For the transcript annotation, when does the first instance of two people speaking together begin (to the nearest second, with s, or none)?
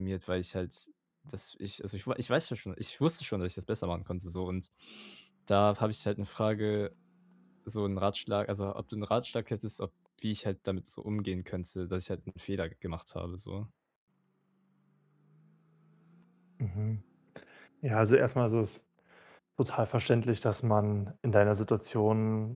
none